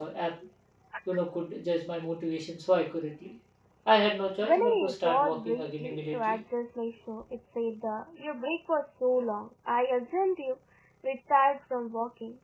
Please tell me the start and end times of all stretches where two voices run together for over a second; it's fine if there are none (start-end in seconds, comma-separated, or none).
4.4-6.4